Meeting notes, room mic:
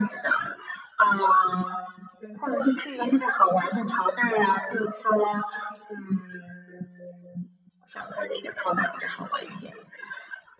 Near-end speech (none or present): none